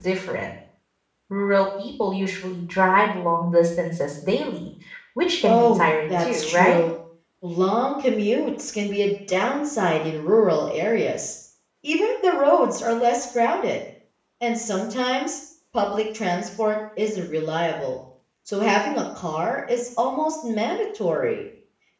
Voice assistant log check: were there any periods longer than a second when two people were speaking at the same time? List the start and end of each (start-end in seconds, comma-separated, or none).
5.4-6.8